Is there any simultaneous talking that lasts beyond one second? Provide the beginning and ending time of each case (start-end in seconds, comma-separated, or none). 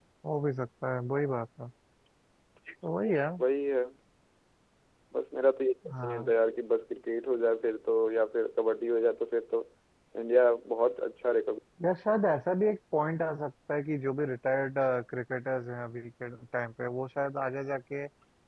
none